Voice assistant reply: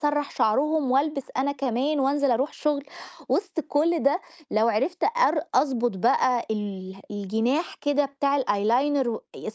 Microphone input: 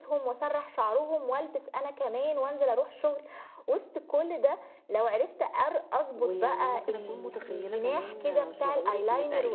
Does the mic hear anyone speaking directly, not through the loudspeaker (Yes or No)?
Yes